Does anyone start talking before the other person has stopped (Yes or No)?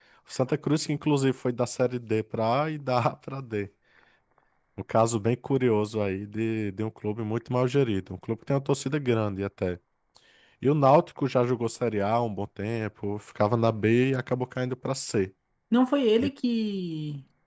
No